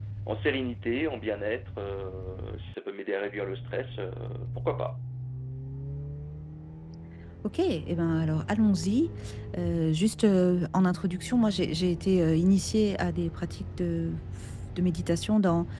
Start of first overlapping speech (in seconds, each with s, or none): none